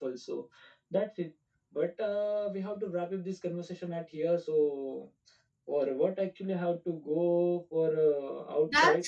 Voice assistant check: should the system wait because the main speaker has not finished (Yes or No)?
No